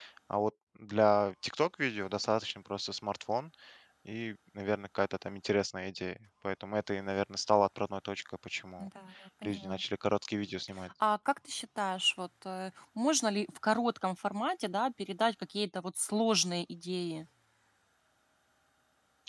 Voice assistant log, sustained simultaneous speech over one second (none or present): none